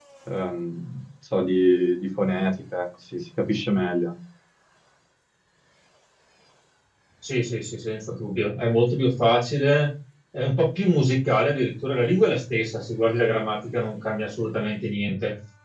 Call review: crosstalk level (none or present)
none